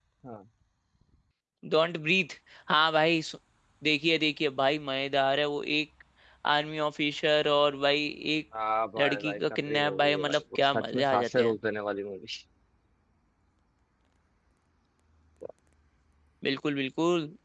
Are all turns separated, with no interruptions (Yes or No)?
No